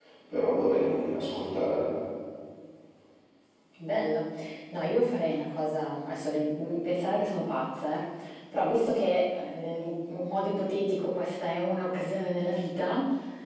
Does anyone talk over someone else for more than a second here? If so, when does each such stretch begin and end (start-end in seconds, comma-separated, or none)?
none